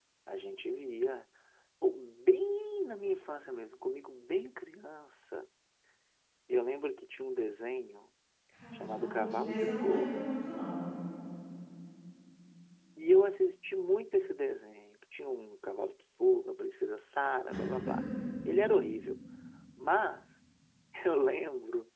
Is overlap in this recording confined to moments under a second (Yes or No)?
No